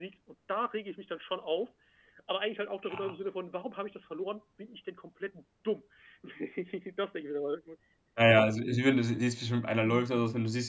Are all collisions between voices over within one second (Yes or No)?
Yes